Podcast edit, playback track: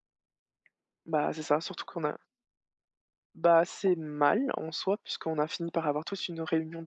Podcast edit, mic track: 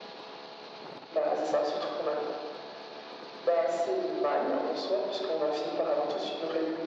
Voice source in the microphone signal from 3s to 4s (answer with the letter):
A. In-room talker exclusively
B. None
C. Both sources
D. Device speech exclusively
D